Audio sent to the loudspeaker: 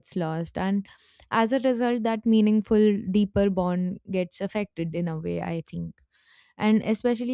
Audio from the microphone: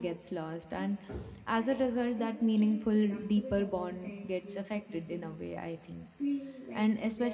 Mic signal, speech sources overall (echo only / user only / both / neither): both